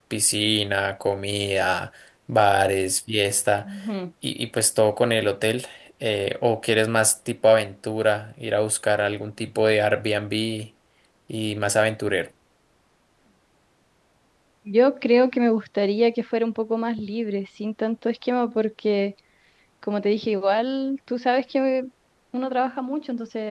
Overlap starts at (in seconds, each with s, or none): none